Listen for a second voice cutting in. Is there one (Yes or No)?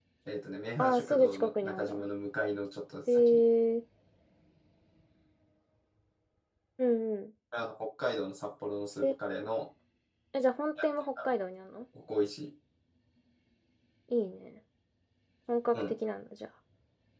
Yes